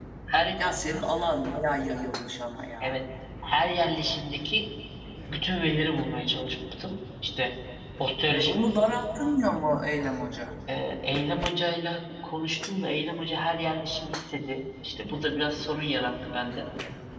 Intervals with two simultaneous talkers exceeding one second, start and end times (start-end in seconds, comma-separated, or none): none